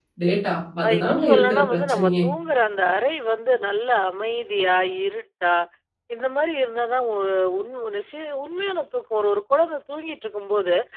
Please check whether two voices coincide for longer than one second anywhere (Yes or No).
Yes